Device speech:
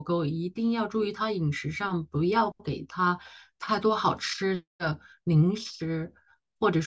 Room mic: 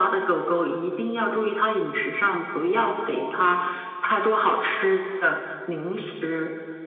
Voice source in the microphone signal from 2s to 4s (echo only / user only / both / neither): echo only